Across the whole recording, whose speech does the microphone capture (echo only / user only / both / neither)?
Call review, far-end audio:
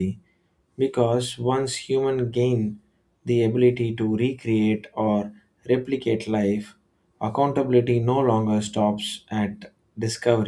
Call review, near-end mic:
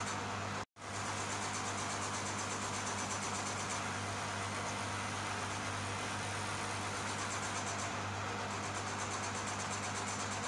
neither